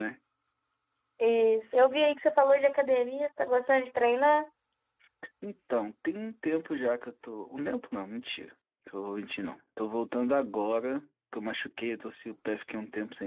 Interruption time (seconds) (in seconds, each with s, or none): none